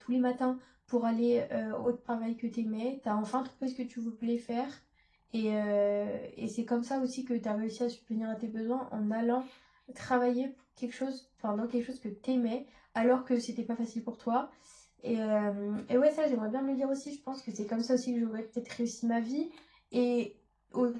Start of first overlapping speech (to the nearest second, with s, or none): none